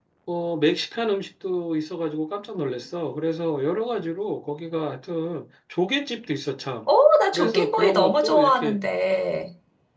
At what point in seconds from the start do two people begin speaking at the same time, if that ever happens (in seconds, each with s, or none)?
7.3 s